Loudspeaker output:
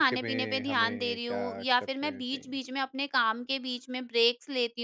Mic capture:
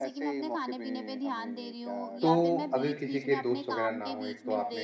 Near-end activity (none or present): present